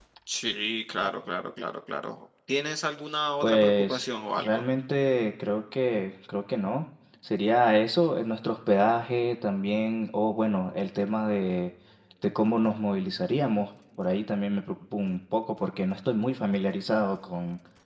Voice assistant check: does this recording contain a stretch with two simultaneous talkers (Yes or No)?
Yes